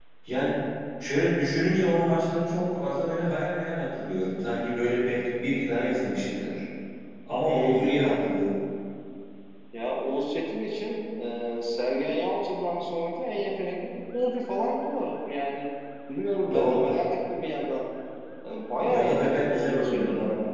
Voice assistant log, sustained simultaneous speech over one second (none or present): present